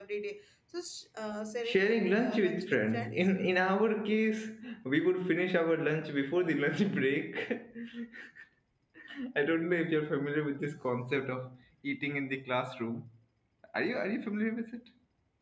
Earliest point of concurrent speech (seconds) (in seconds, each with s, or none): 1.6 s